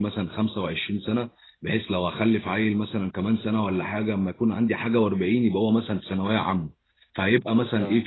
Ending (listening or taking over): listening